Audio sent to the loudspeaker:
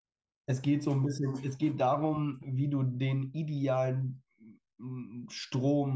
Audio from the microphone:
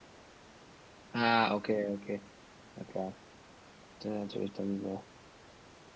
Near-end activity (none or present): present